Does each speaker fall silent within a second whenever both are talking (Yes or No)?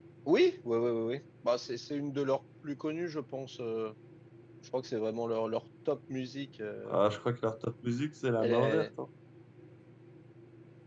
Yes